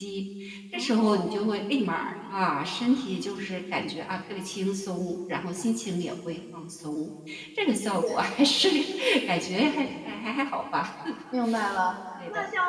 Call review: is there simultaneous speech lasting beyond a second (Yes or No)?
No